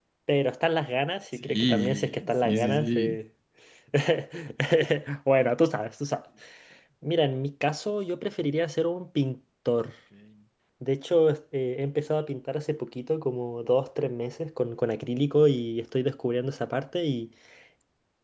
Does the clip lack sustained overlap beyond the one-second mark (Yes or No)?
No